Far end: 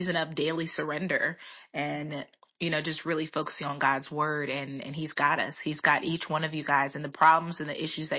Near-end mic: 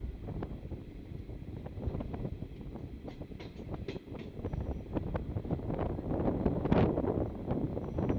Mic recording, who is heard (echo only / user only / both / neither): neither